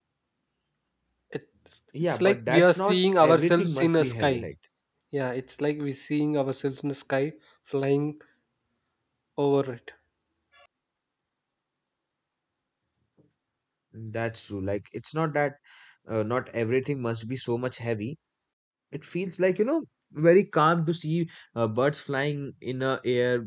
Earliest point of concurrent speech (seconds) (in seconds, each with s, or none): 2.0 s